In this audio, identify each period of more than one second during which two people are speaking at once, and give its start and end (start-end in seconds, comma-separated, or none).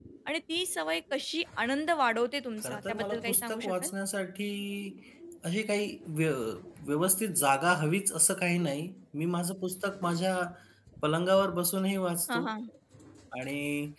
2.6-3.9